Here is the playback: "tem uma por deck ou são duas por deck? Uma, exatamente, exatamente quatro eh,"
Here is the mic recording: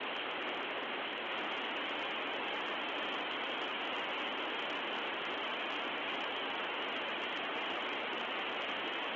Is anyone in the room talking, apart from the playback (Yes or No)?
No